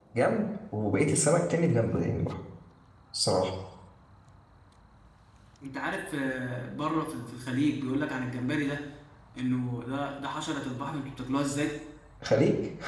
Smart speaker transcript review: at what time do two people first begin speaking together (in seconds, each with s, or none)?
none